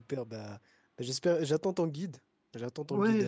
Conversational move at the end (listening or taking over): taking over